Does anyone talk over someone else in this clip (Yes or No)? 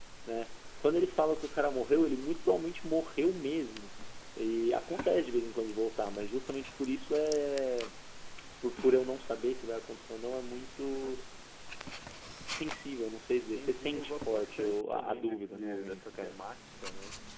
Yes